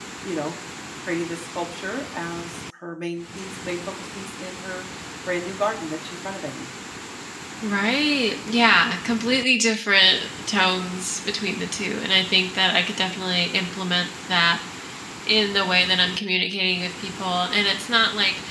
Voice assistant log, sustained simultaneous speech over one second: none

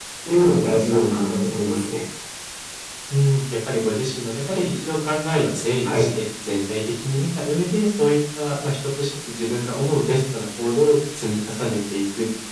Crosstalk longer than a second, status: none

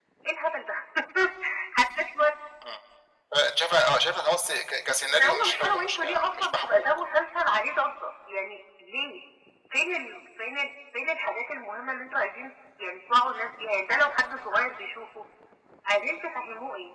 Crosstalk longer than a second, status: present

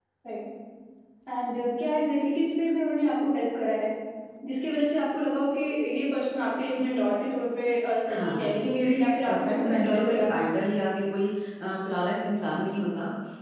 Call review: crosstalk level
present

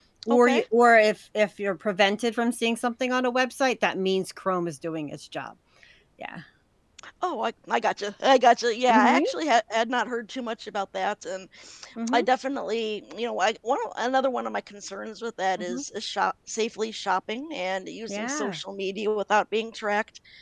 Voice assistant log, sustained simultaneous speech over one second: none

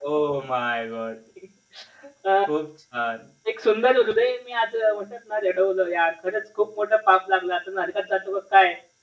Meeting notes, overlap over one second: none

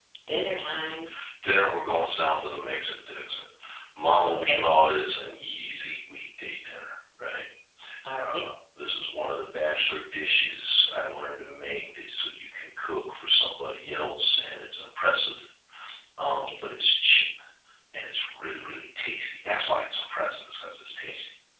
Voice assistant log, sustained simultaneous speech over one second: none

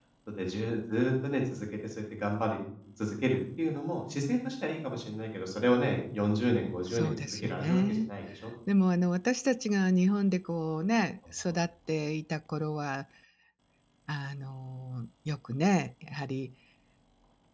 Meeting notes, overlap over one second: present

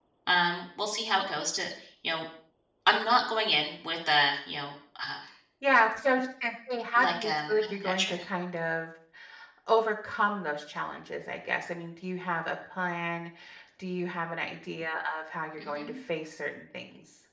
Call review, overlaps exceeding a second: present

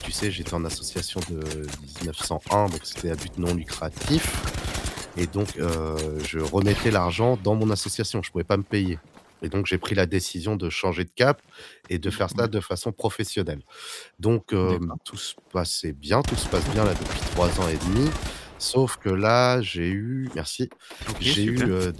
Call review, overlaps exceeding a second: none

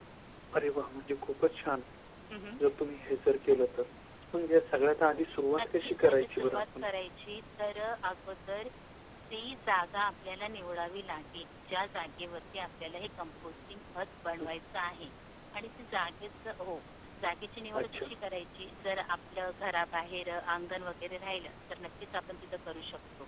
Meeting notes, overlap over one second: present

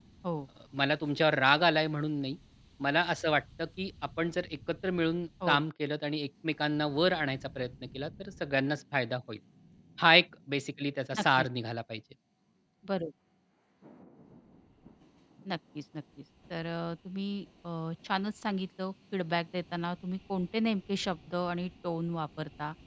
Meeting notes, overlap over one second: none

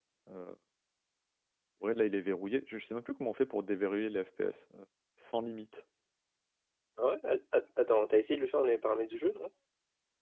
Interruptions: none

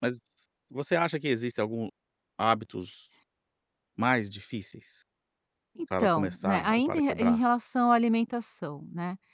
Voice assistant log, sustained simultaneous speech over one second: present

